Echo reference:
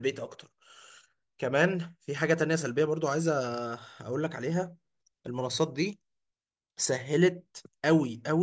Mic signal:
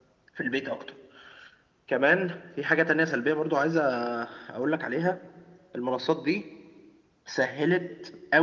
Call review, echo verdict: present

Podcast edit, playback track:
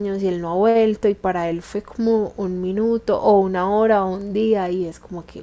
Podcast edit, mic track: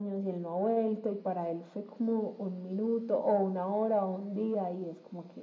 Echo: present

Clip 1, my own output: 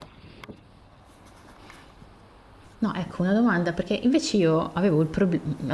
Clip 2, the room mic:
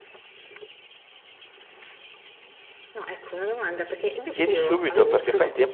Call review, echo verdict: present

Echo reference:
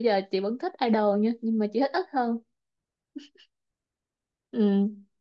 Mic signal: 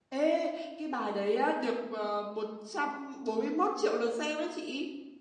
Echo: none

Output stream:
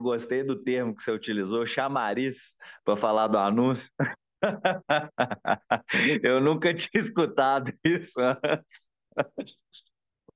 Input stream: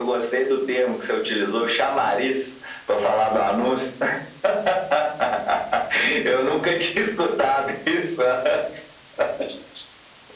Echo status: present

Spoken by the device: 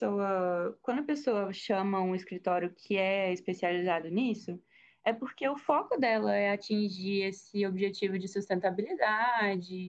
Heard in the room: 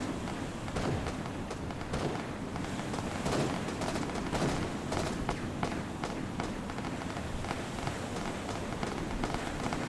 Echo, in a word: none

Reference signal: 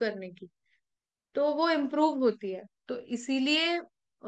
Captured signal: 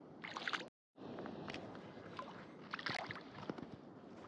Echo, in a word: none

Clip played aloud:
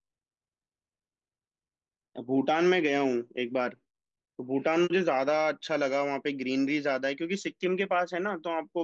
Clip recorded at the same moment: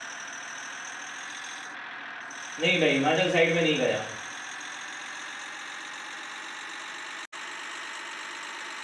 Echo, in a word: none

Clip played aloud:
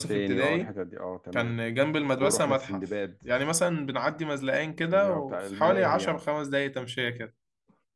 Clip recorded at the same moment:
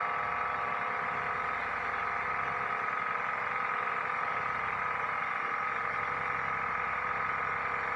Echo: none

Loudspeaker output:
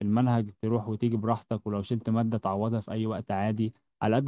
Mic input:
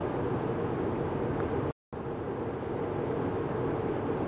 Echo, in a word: none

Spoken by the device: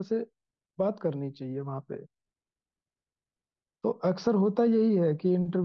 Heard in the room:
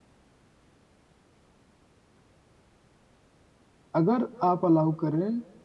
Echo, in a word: none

